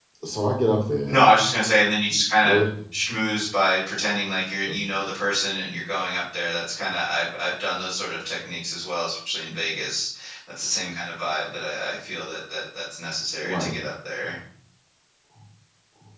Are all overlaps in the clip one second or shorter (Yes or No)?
Yes